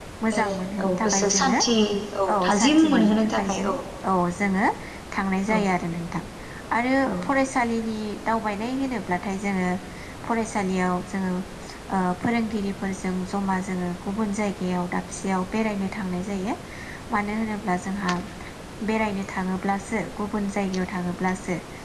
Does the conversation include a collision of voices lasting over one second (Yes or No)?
Yes